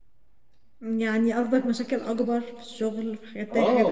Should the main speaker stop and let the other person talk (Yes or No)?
Yes